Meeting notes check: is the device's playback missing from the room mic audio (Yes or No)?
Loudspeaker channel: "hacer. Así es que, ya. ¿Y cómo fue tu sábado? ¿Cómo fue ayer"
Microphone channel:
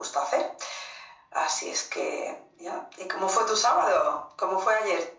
No